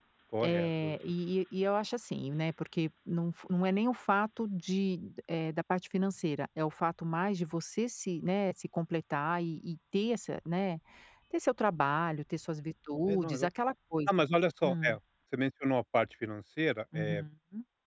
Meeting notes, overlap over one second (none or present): none